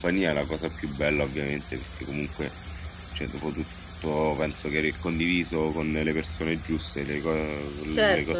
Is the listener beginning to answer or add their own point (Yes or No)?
Yes